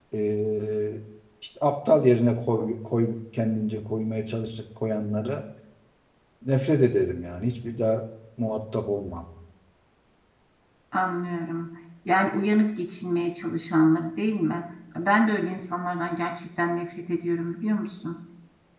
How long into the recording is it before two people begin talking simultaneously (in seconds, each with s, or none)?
none